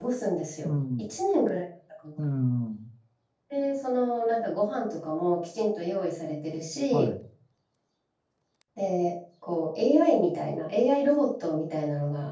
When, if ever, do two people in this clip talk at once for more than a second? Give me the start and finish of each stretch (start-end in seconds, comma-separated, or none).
none